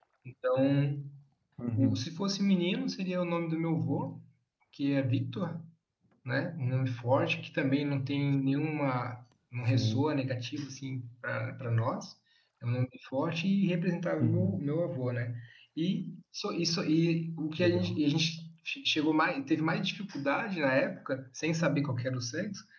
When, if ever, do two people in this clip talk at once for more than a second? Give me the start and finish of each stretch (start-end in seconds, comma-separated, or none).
none